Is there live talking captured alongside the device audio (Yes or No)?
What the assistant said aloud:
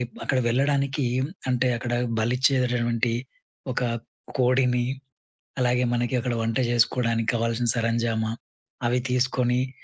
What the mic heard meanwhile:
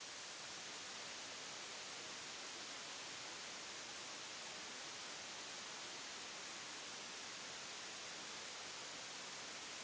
No